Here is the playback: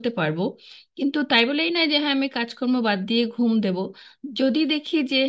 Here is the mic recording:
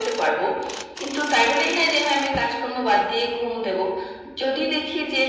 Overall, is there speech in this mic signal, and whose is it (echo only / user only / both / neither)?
echo only